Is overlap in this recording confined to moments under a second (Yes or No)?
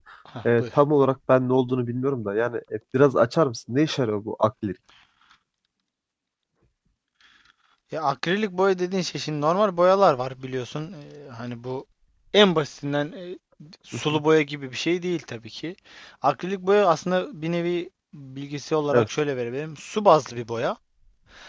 Yes